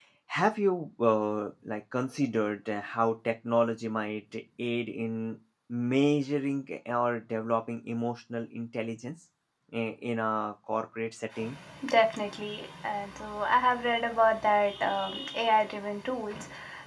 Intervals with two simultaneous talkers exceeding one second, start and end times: none

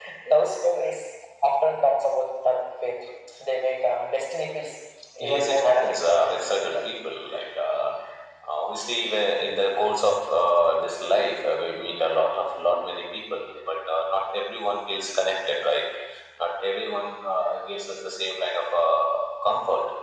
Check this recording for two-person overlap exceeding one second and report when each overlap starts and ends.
5.2-6.8

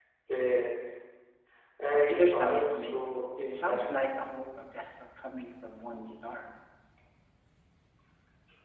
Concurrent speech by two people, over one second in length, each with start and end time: 2.1-4.1

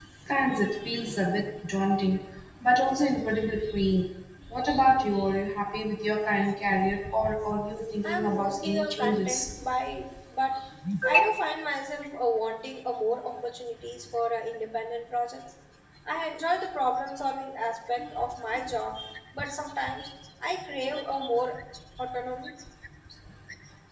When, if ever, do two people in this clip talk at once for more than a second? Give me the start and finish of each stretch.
8.0-9.4

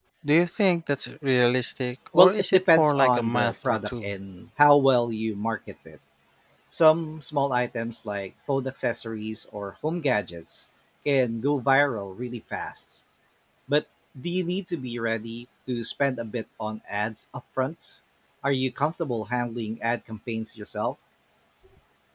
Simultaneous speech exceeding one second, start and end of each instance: 2.1-4.1

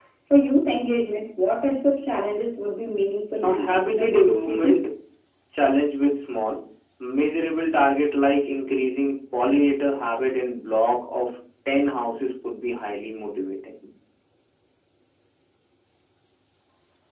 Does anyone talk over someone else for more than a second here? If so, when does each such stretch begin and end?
3.4-4.8

